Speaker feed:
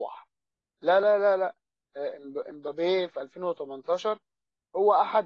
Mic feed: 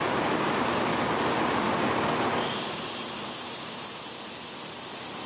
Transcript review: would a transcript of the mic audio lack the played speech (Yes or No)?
Yes